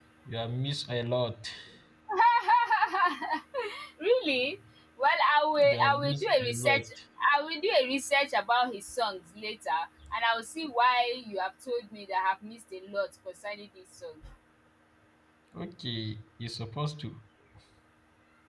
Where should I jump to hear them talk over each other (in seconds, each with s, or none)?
5.7 s